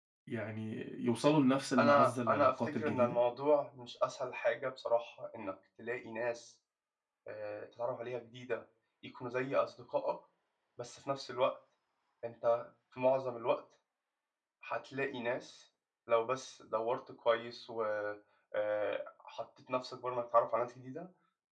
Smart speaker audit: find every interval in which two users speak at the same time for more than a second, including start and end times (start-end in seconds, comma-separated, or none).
1.8-3.2